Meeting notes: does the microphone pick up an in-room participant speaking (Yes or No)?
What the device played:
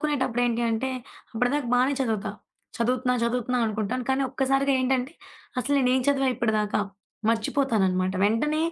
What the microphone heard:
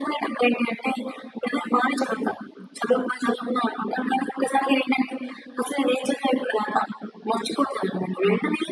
No